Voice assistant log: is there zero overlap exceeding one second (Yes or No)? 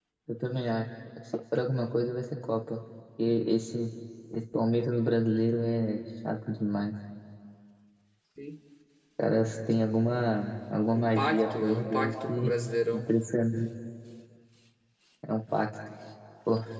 No